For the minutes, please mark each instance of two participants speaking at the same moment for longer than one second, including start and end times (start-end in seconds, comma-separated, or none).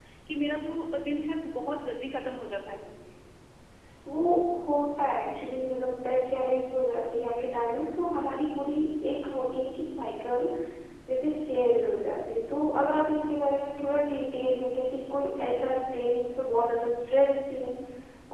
none